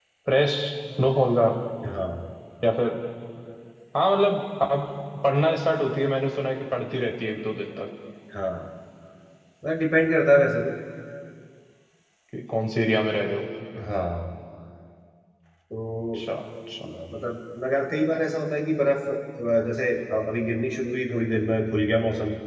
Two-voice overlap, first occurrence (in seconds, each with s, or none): none